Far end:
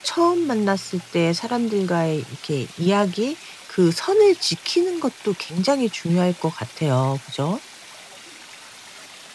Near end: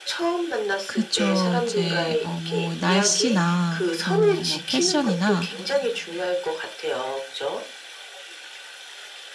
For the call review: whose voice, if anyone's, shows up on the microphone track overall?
both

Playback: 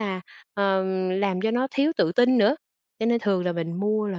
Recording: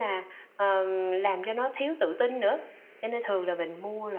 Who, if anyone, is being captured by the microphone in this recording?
echo only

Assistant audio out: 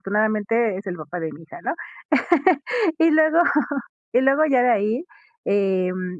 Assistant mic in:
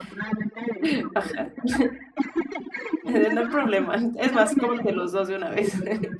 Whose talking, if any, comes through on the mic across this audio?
both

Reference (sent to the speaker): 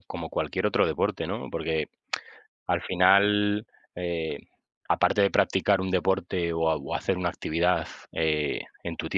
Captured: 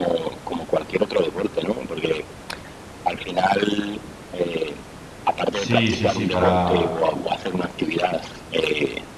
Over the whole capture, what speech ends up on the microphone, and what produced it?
both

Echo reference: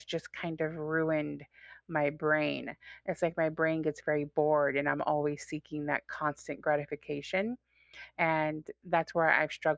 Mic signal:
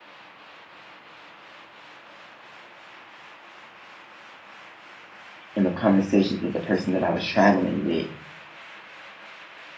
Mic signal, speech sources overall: user only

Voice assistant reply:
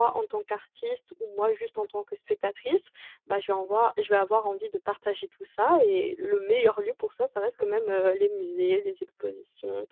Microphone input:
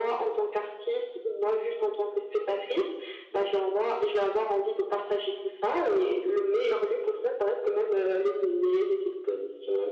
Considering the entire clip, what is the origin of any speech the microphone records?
echo only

